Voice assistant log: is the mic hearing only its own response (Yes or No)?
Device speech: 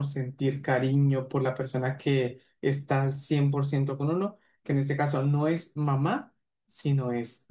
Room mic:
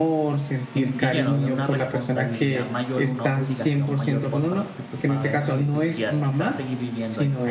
No